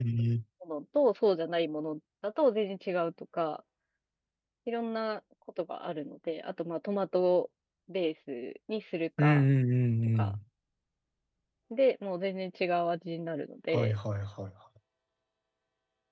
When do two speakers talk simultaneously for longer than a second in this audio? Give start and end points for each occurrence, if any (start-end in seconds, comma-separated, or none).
none